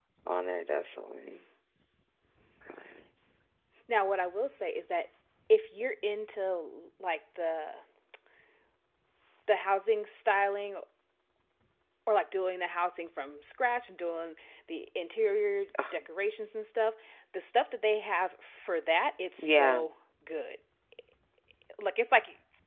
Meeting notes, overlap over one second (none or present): none